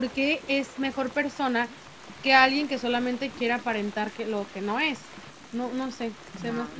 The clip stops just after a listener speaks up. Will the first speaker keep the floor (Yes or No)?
No